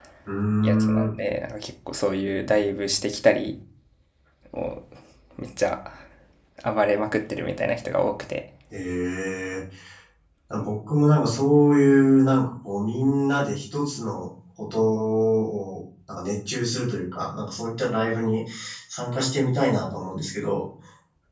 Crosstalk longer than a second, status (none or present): none